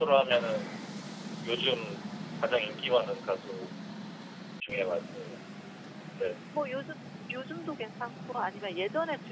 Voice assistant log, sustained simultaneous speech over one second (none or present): none